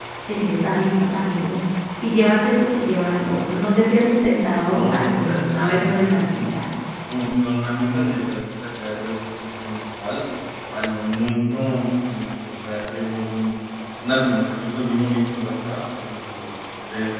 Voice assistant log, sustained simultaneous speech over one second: present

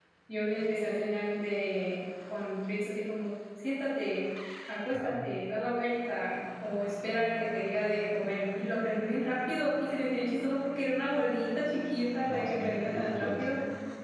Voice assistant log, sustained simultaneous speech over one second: present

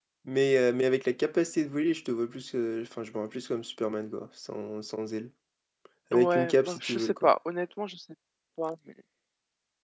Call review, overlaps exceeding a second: present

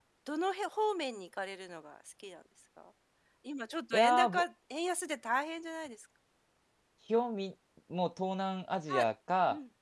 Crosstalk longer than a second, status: none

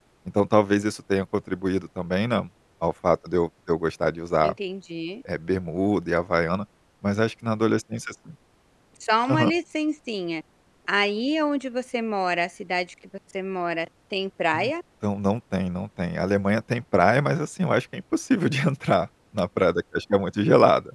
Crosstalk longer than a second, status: none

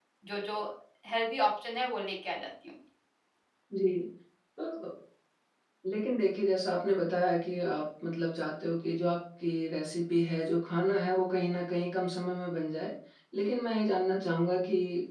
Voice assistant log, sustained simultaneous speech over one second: none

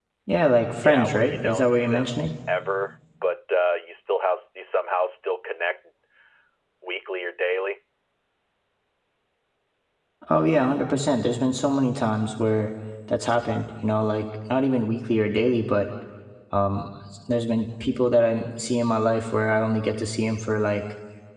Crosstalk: present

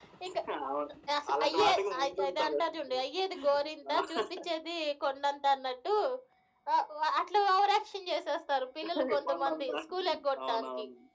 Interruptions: present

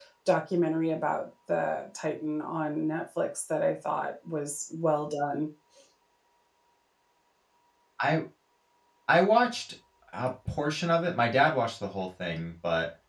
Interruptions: none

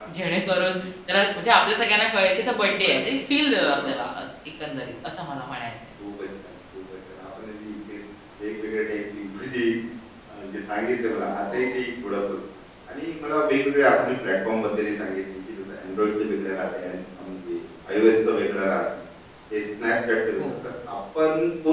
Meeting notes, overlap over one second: none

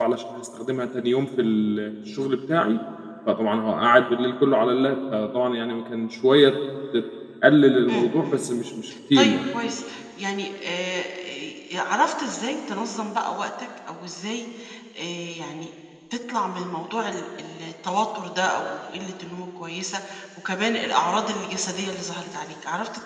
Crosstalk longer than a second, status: none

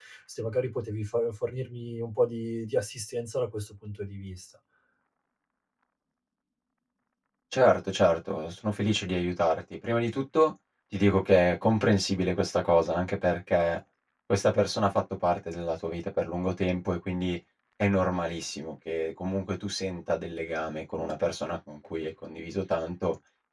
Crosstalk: none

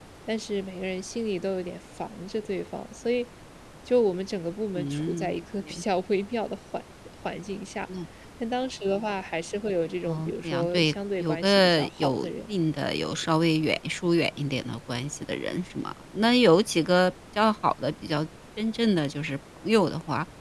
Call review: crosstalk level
present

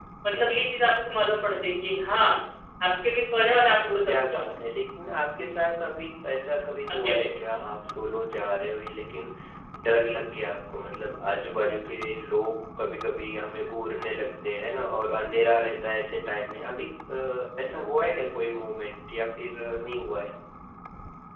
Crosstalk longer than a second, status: none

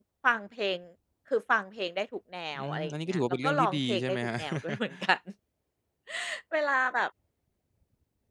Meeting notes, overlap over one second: present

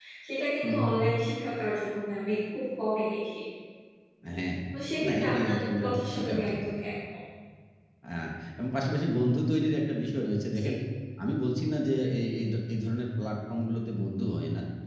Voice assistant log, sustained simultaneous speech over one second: present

